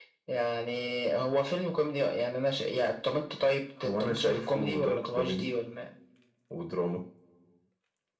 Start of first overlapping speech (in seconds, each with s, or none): 3.8 s